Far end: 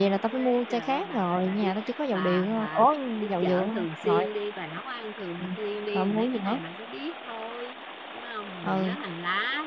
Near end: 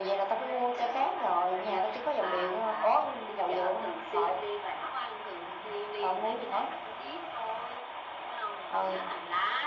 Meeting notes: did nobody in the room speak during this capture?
Yes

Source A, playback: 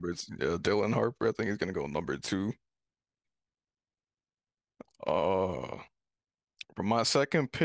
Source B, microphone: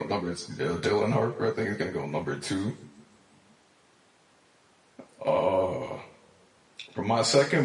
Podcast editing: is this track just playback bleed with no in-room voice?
Yes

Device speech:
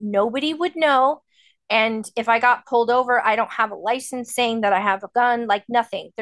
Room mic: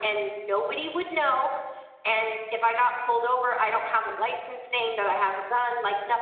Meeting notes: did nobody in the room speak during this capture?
Yes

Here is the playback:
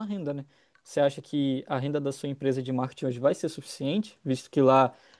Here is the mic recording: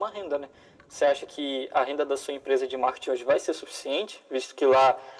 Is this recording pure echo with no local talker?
Yes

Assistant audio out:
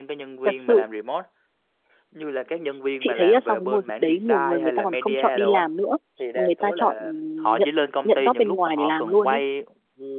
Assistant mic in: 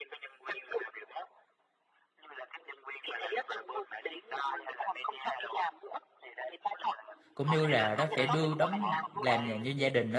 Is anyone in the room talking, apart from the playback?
Yes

